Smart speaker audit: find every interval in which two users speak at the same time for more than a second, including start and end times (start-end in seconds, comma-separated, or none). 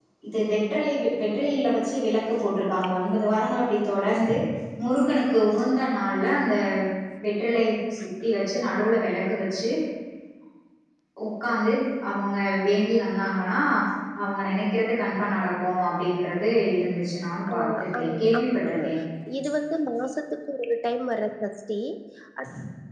17.5-18.7